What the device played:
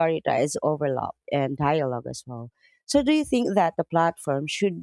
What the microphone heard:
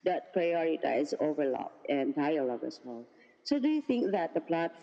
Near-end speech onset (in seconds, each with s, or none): none